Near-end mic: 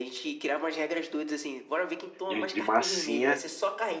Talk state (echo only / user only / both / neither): both